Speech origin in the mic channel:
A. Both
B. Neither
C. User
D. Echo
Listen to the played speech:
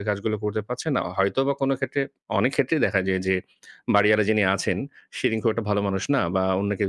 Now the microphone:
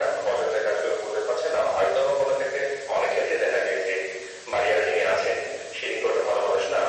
D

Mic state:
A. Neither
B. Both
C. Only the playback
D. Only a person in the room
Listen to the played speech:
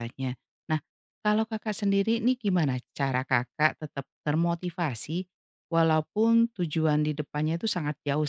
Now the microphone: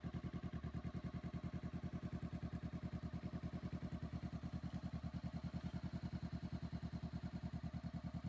A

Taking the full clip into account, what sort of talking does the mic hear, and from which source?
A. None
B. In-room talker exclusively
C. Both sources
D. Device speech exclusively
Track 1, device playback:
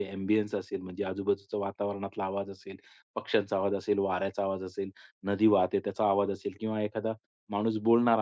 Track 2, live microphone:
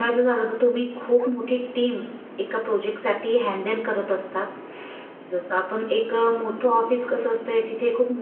B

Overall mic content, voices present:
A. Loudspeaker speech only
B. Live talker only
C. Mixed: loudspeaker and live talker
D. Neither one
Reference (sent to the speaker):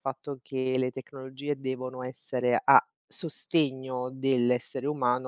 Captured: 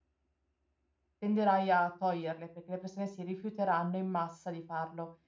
B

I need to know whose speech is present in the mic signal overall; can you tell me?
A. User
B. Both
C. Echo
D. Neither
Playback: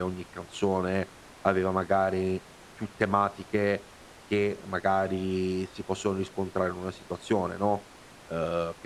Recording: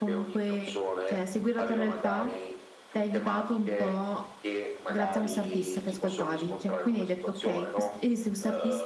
B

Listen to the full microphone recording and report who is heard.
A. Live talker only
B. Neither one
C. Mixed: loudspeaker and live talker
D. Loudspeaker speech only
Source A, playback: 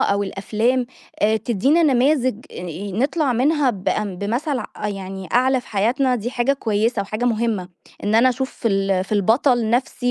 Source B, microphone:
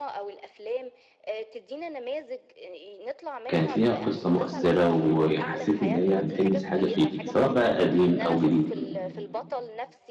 C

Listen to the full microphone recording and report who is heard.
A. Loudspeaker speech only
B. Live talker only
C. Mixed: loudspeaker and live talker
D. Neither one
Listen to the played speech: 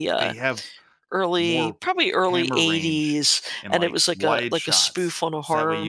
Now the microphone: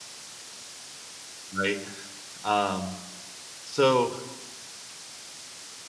B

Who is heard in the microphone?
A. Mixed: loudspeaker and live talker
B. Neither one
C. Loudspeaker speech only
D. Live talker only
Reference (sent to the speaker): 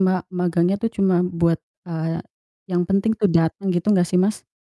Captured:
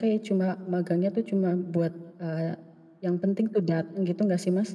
C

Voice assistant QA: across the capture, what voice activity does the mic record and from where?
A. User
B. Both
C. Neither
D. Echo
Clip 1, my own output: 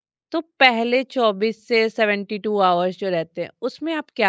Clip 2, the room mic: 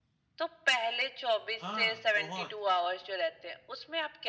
B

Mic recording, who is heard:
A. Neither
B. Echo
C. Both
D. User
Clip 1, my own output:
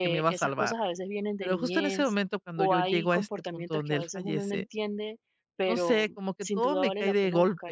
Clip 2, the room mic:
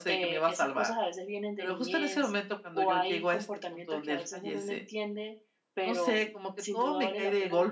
B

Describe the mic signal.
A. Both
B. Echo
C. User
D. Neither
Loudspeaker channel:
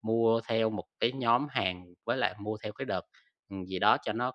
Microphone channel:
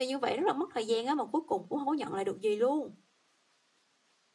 C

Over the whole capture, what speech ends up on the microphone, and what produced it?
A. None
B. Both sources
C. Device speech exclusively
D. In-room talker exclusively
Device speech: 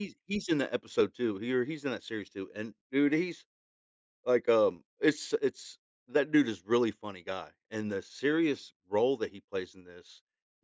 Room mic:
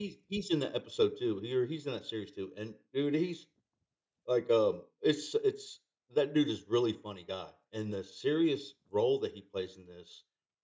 C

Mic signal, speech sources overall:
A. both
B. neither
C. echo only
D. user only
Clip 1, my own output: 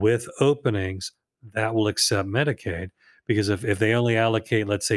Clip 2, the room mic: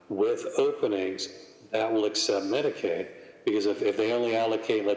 C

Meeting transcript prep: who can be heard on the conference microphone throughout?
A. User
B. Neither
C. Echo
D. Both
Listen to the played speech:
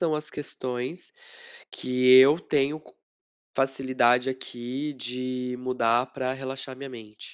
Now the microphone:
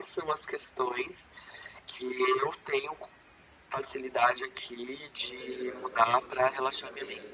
D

